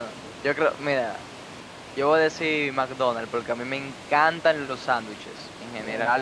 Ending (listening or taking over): listening